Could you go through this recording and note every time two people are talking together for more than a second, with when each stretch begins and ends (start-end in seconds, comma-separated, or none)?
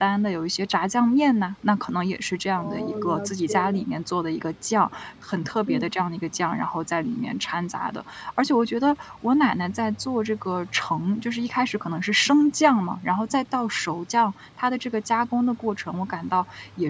2.6-3.9